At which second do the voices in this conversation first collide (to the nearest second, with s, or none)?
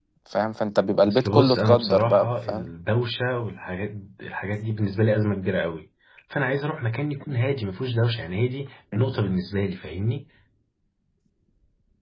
1 s